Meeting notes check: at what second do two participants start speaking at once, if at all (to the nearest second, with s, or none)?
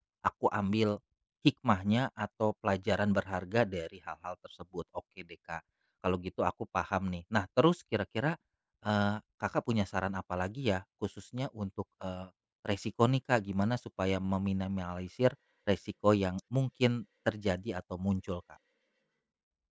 none